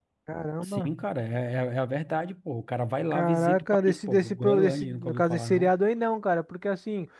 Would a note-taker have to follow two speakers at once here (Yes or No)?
Yes